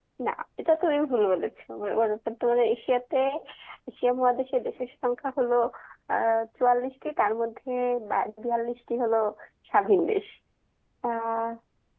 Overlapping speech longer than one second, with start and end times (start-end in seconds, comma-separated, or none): none